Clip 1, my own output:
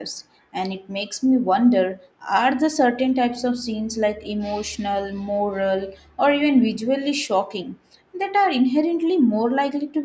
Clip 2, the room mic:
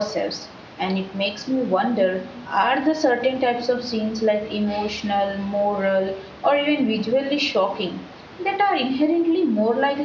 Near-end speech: none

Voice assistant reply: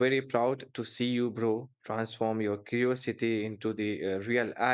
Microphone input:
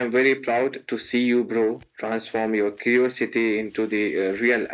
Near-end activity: none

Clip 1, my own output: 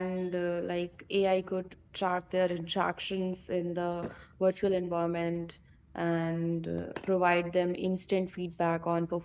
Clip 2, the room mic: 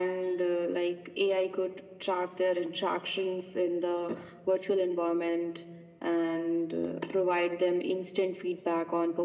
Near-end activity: none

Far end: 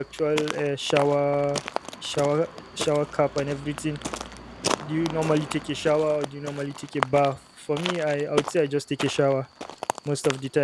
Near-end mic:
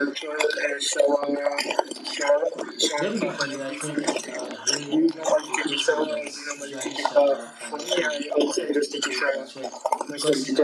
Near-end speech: present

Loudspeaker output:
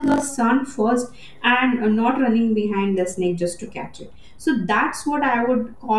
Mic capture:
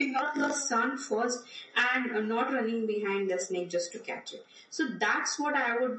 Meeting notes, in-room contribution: none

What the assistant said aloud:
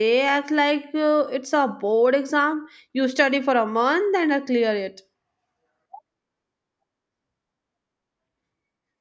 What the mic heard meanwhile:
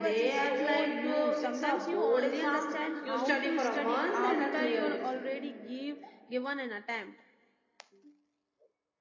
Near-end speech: present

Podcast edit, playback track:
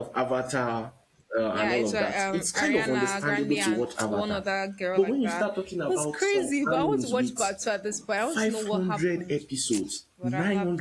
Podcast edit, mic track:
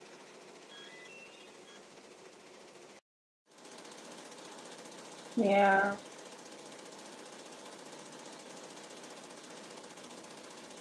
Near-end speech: present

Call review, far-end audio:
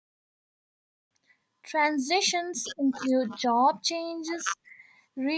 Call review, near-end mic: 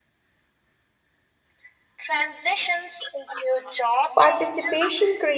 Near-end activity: present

